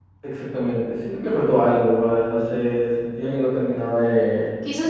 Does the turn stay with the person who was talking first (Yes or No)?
No